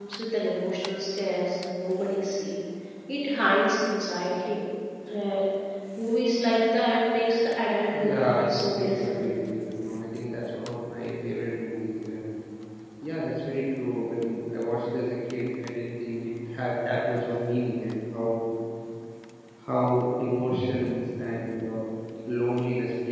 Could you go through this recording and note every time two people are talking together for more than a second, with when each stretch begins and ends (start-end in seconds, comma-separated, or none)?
7.9-9.3